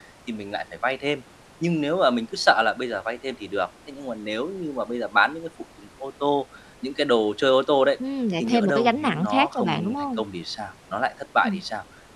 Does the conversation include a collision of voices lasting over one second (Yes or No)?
Yes